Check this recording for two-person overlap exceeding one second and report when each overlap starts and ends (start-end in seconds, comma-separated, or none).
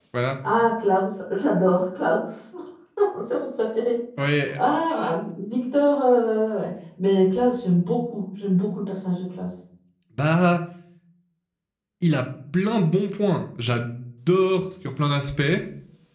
none